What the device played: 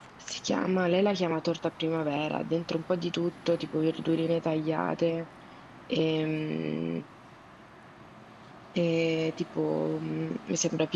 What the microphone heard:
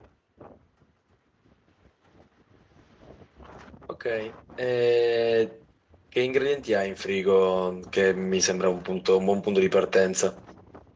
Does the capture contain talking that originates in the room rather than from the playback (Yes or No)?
Yes